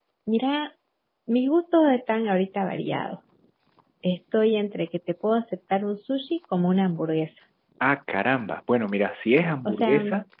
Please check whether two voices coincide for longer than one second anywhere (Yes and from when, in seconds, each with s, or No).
No